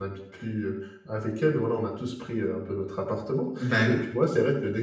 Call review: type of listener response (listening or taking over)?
listening